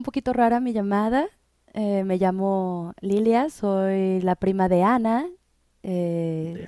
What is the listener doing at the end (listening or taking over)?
listening